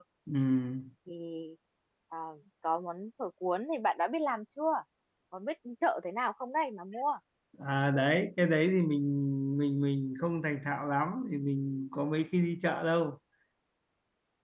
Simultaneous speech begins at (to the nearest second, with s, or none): none